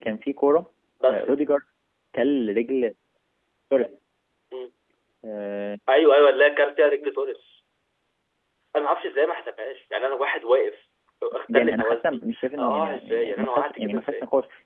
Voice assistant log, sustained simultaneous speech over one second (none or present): present